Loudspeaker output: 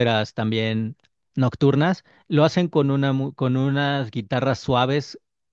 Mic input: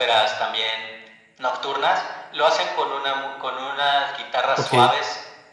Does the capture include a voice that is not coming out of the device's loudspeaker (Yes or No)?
Yes